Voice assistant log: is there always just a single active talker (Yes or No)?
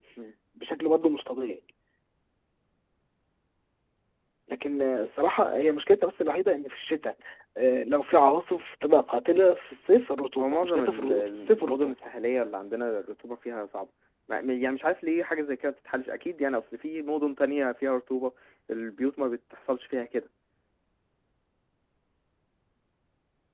No